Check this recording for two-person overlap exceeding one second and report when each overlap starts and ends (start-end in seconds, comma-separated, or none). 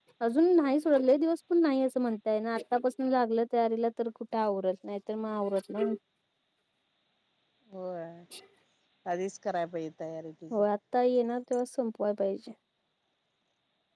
none